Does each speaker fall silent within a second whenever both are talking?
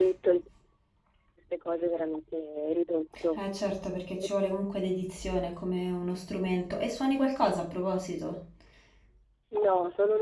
Yes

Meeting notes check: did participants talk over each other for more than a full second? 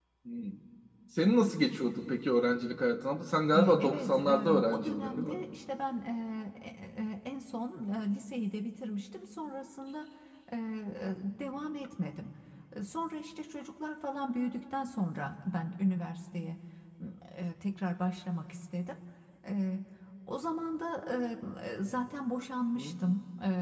Yes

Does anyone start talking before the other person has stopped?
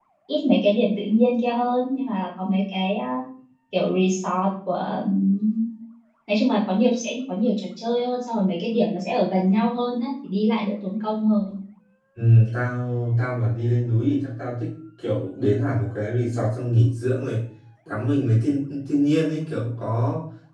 No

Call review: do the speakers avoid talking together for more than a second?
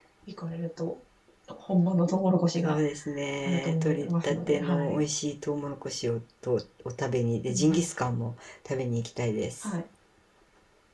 No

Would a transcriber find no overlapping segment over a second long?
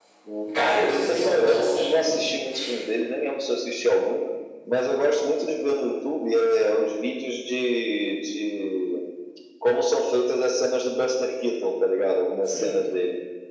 No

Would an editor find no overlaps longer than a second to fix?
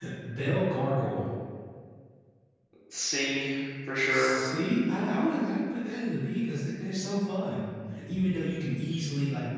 Yes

